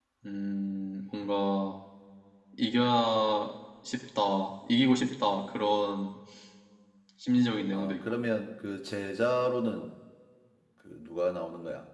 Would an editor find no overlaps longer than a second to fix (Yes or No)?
Yes